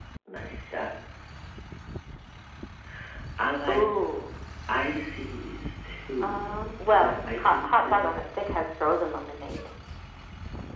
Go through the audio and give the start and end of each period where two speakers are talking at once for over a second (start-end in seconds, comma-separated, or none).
6.2-8.2